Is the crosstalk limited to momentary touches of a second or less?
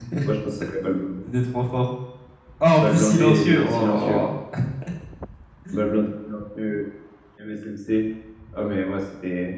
No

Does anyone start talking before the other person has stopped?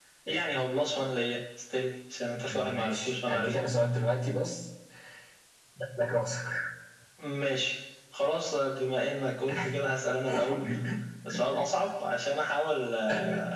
Yes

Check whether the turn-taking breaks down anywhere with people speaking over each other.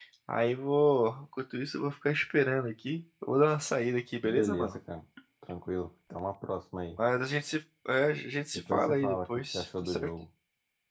Yes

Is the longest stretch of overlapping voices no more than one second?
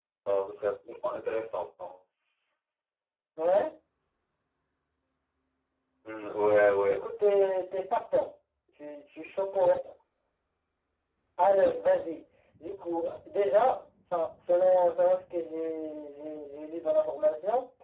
Yes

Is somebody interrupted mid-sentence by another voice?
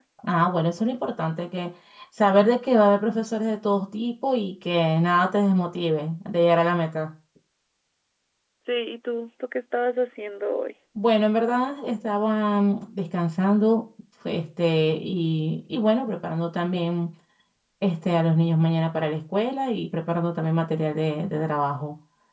No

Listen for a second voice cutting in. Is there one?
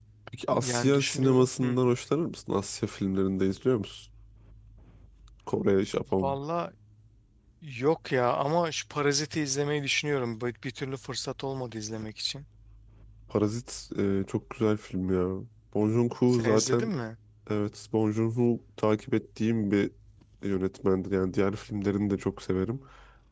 Yes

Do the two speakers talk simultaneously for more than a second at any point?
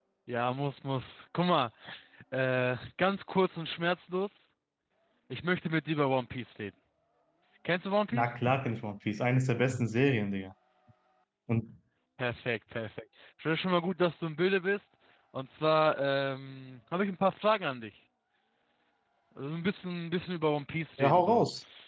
No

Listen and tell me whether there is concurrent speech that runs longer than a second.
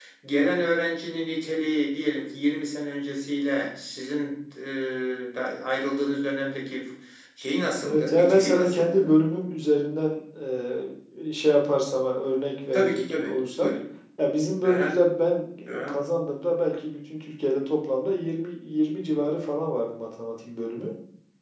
Yes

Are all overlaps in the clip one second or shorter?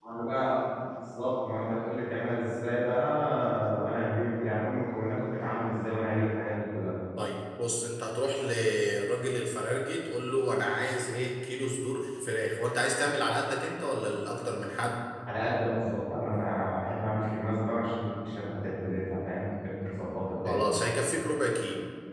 Yes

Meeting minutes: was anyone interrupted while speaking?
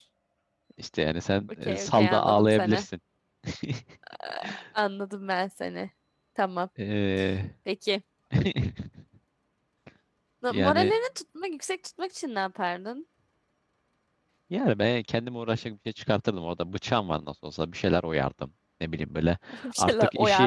Yes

